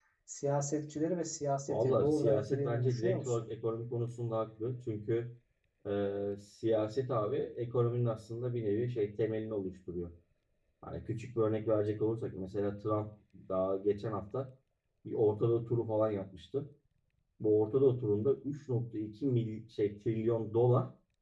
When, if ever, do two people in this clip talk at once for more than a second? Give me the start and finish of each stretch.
1.7-3.4

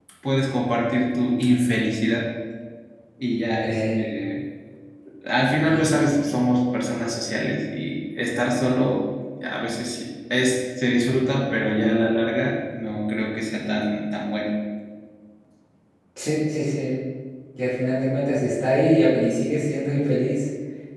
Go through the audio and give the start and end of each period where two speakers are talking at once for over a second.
none

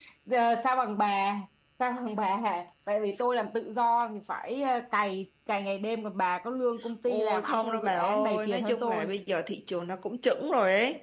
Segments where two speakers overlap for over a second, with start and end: 7.1-9.1

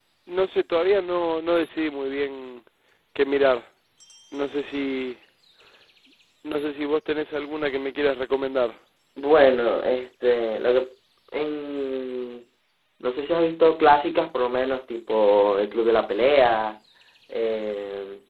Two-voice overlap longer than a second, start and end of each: none

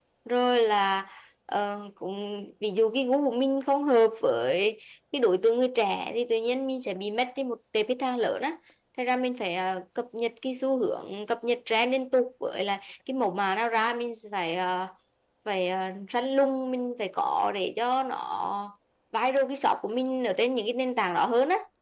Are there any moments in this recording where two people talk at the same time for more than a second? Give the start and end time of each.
none

